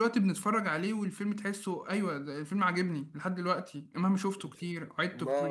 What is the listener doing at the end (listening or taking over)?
taking over